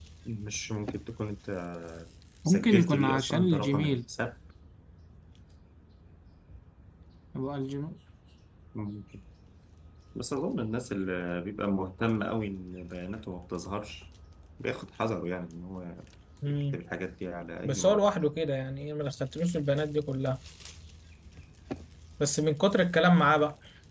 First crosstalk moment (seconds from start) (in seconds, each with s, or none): 2.5 s